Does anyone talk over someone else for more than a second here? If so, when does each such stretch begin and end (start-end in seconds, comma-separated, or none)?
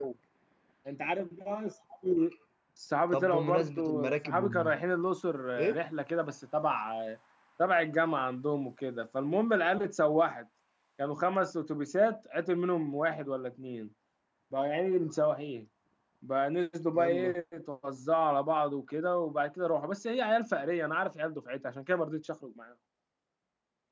3.1-4.8